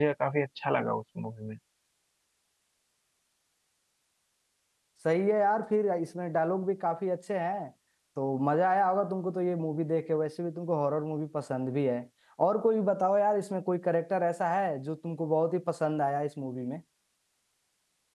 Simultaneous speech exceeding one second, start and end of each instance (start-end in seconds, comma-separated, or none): none